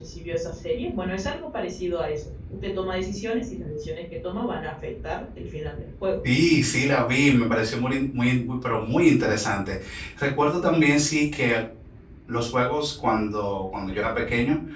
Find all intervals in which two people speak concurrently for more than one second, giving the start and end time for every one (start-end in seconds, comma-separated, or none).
none